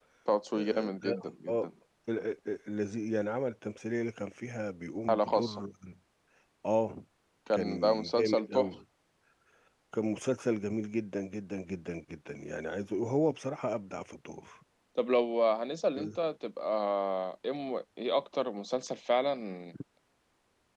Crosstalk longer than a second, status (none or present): present